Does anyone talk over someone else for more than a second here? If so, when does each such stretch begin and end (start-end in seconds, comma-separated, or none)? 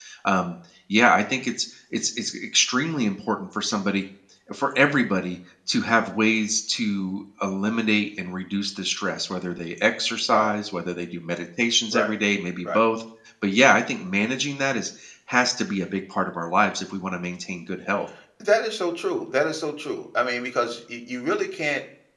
none